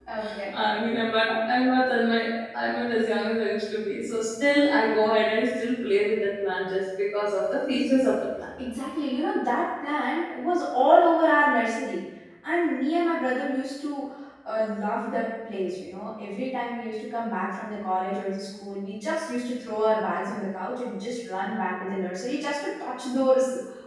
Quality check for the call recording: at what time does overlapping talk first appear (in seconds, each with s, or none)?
none